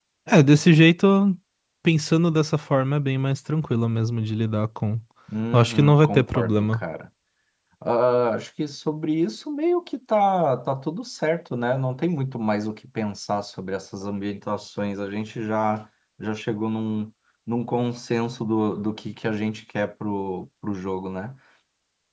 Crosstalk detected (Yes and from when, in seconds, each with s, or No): Yes, from 5.5 s